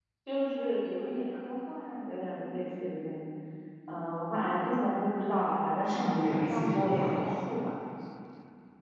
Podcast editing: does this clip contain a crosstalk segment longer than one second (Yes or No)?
Yes